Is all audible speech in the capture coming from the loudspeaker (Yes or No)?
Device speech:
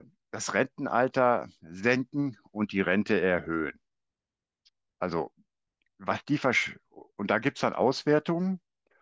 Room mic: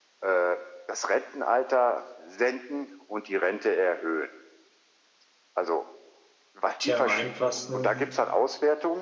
No